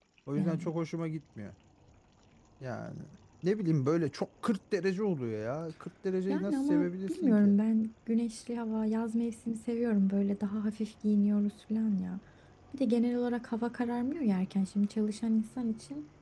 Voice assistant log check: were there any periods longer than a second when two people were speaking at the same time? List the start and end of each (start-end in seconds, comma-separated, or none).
6.3-7.5